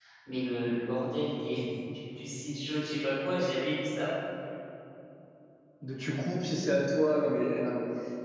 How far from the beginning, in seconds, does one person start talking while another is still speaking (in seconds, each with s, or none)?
none